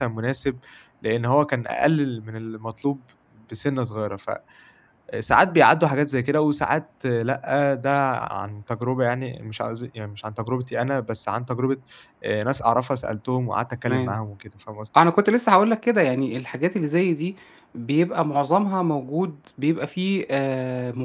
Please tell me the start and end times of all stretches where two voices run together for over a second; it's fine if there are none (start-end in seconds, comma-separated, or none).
none